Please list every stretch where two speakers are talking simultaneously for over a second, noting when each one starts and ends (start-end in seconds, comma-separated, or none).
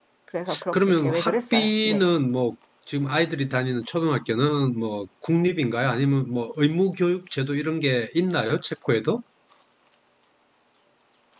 0.7-2.1